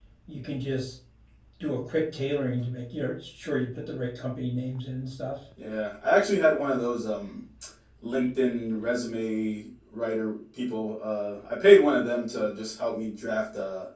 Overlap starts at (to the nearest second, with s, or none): none